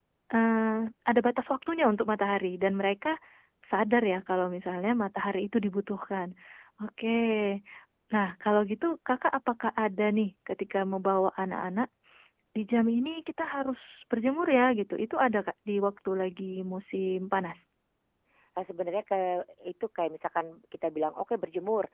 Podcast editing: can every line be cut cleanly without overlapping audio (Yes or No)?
Yes